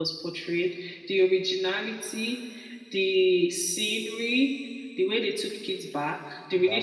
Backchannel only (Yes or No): Yes